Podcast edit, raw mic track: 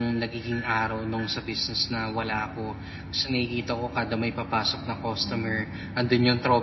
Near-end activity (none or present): present